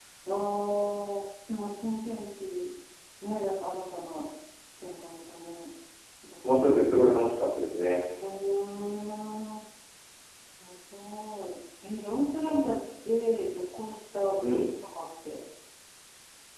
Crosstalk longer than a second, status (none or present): none